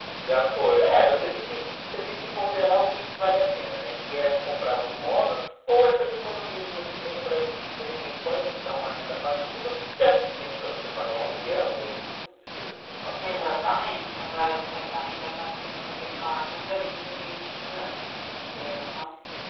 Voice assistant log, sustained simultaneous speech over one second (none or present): none